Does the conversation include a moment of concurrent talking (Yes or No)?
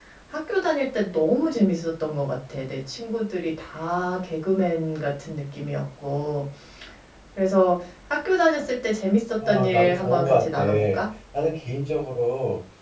Yes